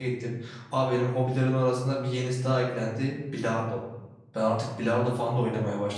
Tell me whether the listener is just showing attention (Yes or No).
Yes